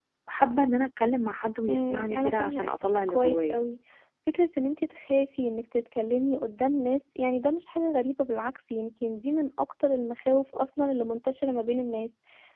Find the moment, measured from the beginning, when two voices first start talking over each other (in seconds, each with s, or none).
1.7 s